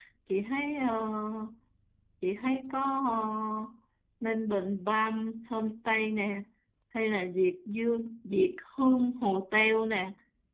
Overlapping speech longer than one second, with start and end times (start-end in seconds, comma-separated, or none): none